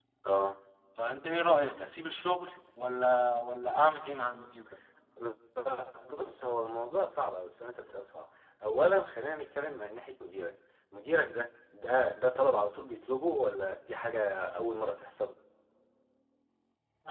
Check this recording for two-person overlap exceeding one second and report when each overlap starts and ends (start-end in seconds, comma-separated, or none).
none